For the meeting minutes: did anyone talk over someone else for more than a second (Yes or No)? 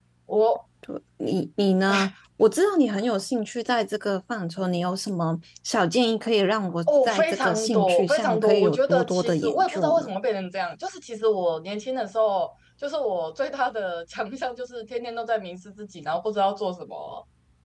Yes